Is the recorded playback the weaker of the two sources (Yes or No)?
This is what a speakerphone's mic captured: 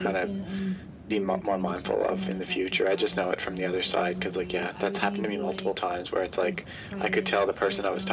No